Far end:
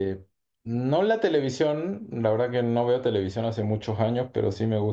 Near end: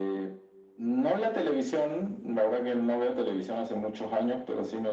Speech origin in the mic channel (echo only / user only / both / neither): echo only